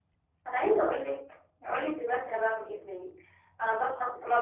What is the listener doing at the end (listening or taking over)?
listening